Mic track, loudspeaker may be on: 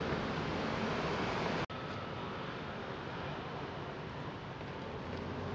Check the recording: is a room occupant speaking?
No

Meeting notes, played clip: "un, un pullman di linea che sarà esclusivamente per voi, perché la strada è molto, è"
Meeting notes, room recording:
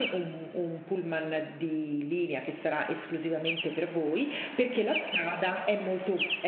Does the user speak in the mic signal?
No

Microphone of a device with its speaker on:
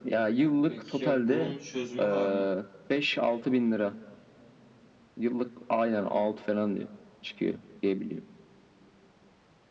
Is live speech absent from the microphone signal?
No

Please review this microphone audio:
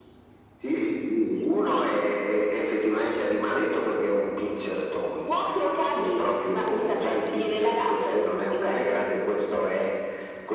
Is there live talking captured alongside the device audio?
No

